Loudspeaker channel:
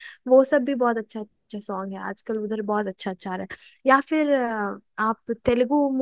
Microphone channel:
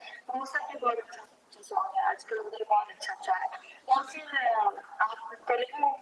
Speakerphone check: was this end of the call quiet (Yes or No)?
Yes